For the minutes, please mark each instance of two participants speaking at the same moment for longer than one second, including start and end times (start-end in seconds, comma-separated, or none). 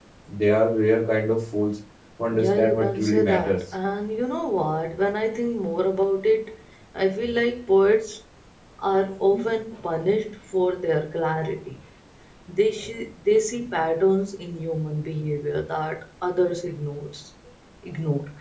2.3-3.6